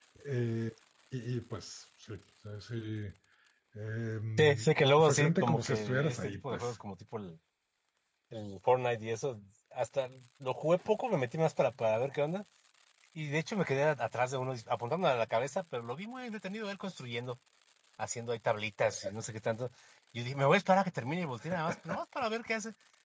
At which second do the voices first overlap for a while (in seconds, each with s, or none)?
4.4 s